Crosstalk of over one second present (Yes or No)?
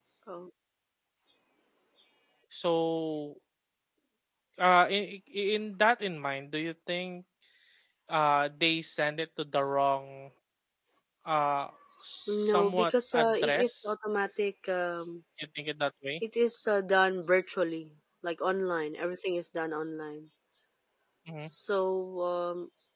Yes